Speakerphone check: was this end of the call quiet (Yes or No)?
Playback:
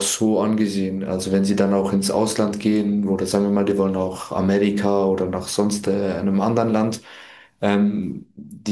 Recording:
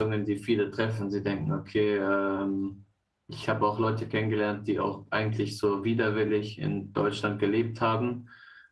No